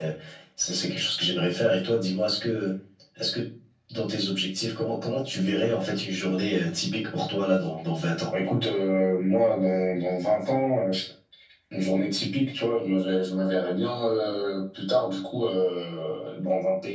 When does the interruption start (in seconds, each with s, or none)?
none